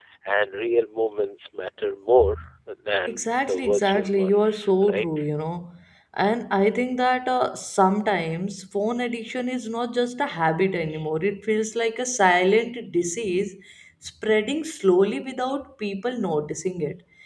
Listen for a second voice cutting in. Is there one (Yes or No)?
Yes